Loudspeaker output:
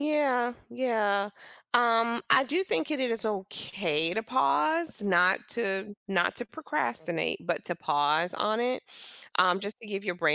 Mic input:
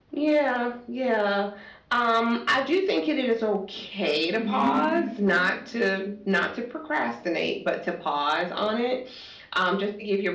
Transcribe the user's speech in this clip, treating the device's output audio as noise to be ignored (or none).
Mm-hmm.